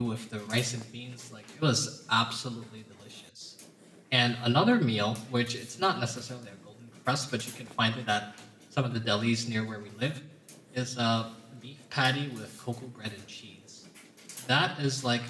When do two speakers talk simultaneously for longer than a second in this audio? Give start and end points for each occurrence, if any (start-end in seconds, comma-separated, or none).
none